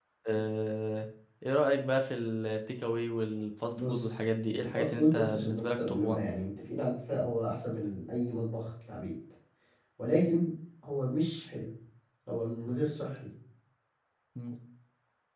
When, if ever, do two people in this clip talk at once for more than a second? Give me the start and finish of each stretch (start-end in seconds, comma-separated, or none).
4.6-6.3